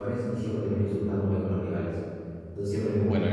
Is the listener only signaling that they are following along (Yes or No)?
Yes